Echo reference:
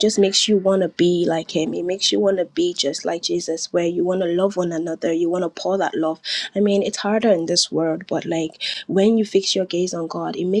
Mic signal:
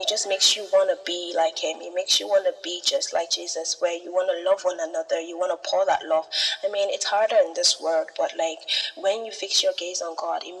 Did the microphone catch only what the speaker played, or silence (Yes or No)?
Yes